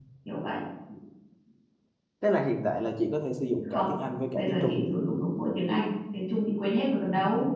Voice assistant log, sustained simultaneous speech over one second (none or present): none